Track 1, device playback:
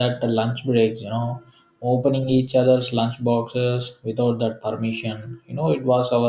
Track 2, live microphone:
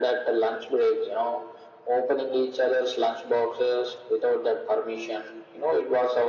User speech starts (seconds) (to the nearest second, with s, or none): none